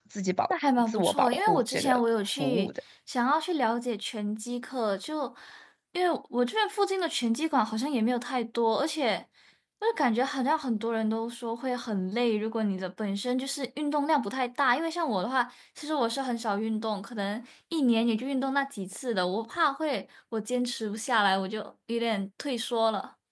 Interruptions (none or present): present